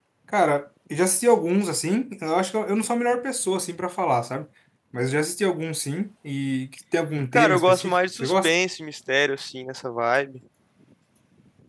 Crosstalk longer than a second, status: present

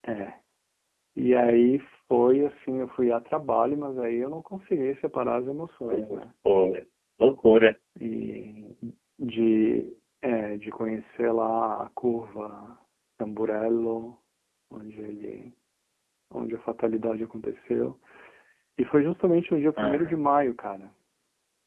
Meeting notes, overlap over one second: none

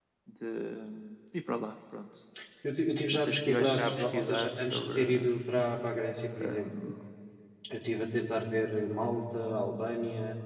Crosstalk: present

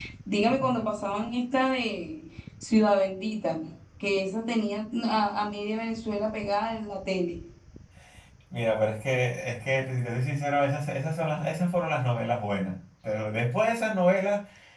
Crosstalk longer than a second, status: none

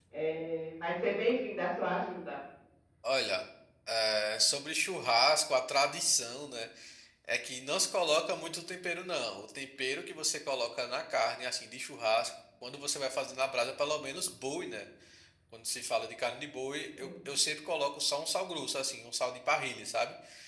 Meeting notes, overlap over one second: none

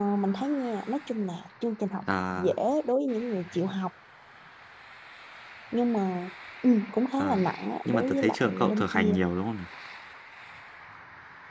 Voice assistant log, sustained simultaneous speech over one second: present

